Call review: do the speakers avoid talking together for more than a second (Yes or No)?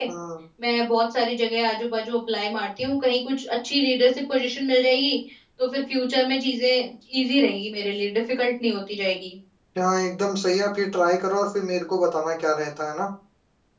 Yes